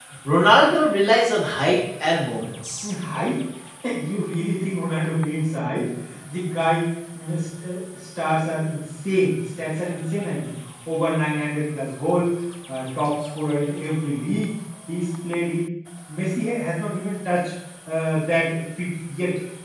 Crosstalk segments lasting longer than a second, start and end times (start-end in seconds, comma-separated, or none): none